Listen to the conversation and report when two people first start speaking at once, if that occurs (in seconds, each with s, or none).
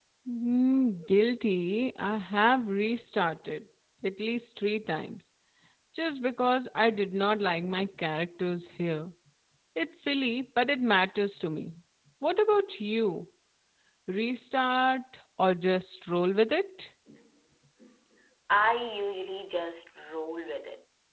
none